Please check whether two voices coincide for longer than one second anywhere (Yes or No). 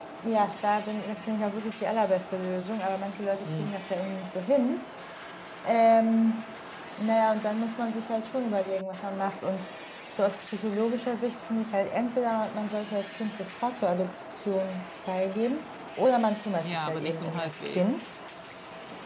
Yes